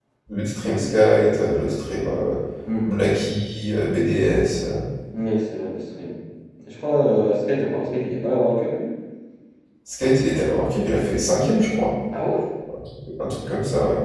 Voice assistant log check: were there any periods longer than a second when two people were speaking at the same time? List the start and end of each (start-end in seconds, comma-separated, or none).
none